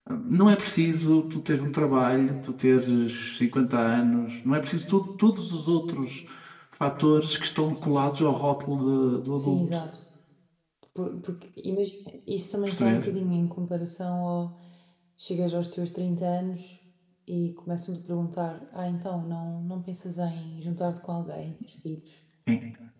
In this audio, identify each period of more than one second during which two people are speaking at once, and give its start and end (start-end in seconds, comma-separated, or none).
none